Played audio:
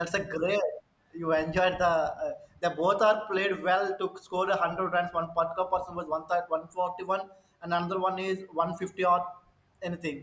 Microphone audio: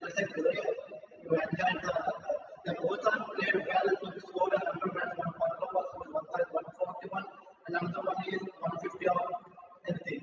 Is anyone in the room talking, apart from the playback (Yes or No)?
No